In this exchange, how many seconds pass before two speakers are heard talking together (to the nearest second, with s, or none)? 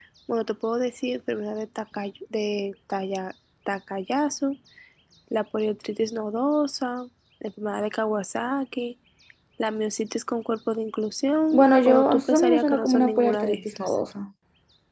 12 s